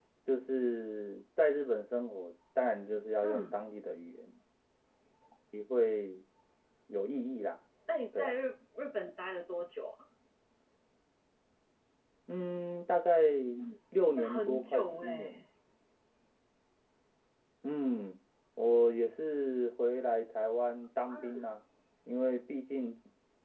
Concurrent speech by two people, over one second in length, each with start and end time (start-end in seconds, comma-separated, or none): 14.2-15.4